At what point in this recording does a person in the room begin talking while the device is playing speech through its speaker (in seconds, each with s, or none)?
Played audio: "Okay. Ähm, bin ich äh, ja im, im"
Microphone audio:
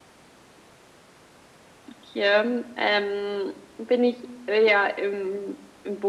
none